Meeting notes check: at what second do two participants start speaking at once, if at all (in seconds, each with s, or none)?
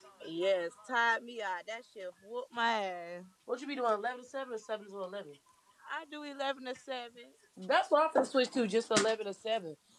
none